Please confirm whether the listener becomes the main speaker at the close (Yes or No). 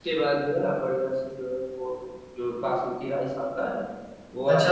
Yes